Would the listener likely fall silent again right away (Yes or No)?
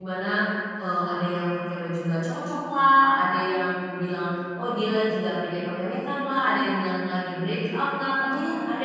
Yes